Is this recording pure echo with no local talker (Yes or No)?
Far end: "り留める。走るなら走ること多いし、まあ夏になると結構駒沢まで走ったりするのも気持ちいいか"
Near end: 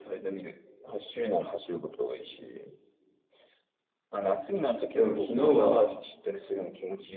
No